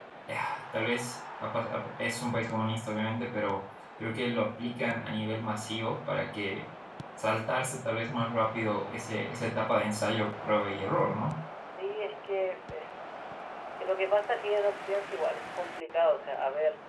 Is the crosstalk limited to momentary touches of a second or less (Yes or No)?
Yes